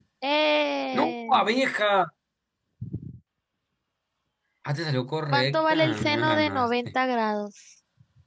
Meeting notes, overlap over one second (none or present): present